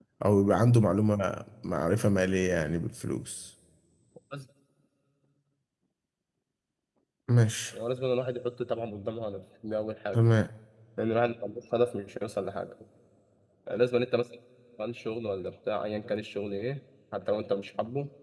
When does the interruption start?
none

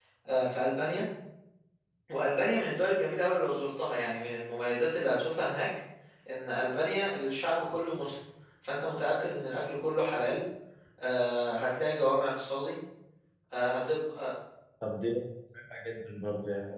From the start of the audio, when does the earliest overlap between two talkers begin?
none

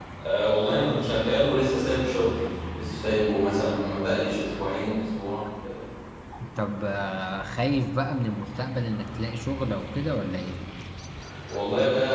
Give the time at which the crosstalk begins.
none

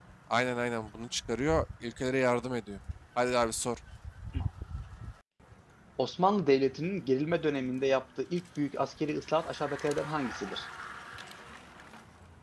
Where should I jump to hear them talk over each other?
none

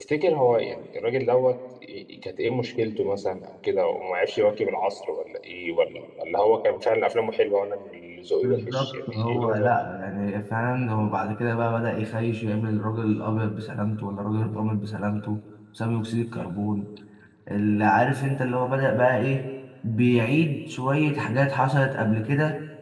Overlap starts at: 8.4 s

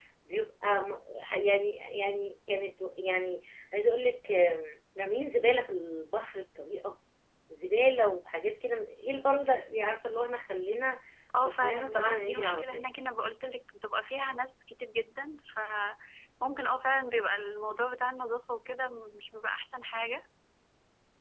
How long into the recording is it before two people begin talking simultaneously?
11.3 s

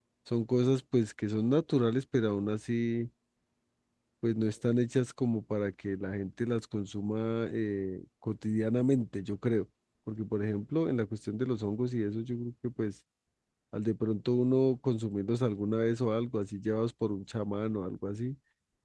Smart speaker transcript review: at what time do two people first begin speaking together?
none

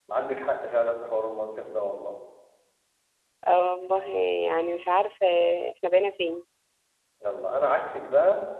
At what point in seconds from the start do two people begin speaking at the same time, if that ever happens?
none

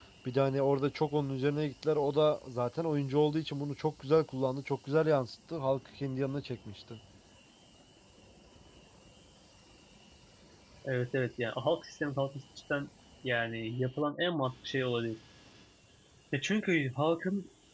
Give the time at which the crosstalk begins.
none

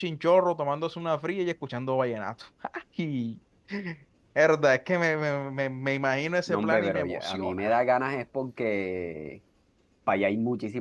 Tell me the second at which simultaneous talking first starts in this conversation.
6.5 s

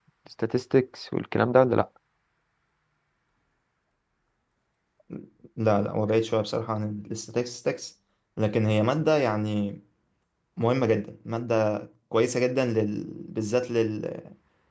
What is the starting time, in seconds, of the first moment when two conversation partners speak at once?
none

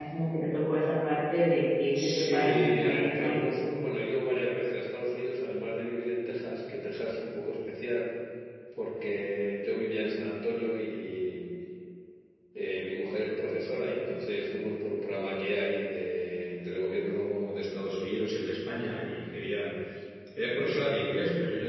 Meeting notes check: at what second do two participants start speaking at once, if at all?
1.9 s

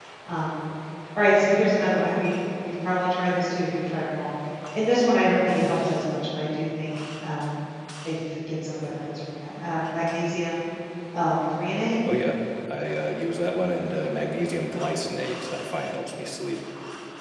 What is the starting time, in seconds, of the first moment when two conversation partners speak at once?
none

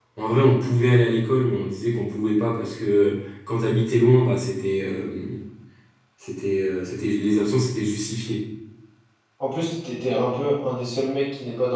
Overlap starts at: none

